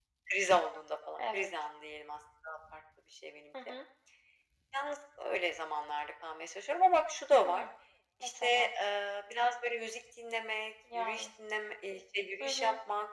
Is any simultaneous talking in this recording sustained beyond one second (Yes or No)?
No